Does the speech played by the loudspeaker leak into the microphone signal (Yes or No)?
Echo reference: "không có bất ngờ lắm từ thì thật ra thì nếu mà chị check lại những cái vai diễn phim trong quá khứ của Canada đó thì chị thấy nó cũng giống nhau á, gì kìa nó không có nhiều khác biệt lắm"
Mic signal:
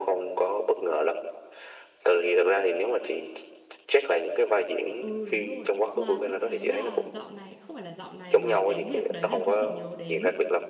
Yes